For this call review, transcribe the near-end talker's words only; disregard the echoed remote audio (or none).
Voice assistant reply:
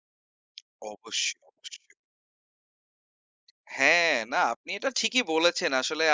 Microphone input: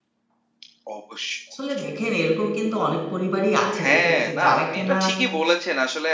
আসলে দেখেন এরকম কিন্তু অনেক পরিবারই আছে যেটা যারা কিনা